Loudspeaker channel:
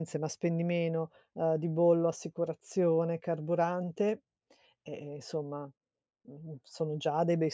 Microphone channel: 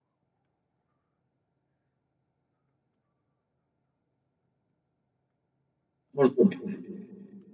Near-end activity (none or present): present